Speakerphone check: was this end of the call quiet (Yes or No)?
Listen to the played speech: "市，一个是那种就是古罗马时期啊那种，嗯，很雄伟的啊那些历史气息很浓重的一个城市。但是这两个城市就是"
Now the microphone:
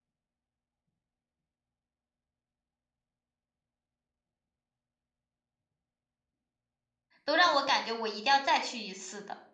No